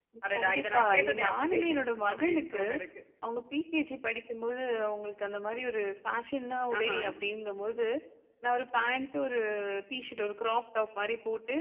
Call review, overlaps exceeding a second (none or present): present